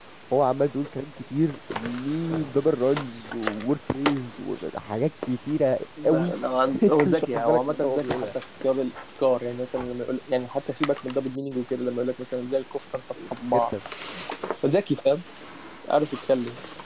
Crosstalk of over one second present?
Yes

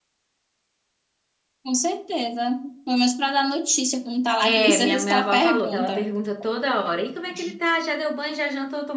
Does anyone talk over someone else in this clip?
Yes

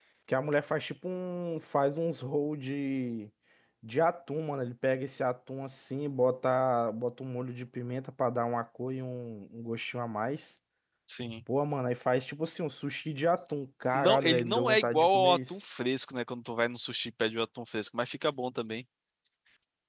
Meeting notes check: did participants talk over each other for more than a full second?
Yes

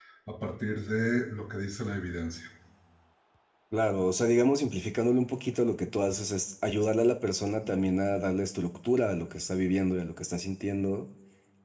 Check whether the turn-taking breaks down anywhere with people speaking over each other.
No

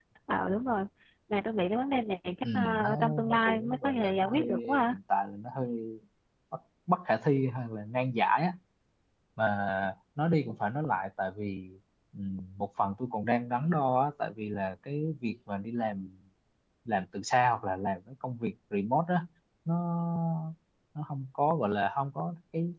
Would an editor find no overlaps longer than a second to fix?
No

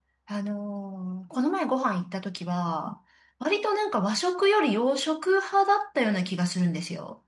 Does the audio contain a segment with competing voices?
No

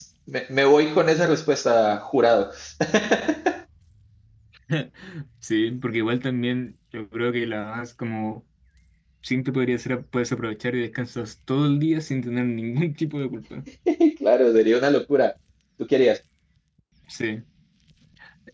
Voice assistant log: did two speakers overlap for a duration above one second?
No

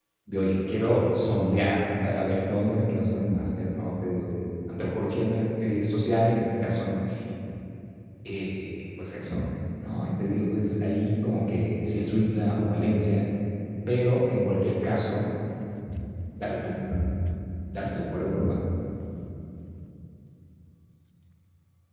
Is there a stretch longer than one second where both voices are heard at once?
No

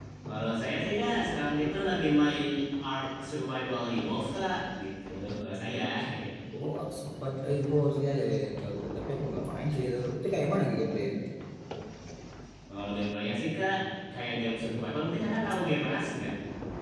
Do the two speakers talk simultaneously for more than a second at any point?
No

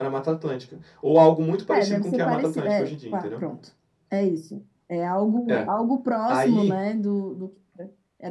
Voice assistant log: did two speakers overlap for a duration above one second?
Yes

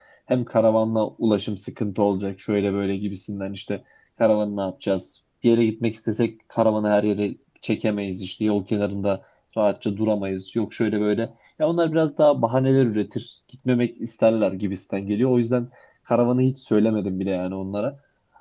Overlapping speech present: No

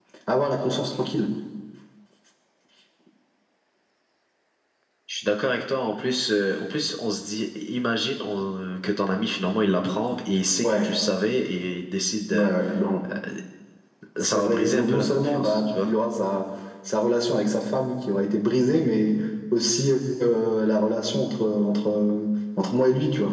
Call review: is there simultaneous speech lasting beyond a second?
Yes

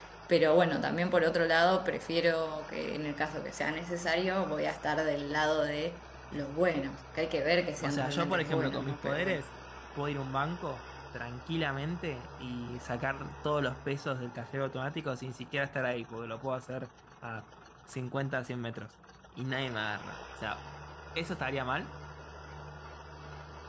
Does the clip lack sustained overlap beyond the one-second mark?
No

